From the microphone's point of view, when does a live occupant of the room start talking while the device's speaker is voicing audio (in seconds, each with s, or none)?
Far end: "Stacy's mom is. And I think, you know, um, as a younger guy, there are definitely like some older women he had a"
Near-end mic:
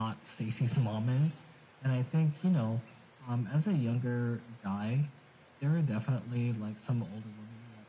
none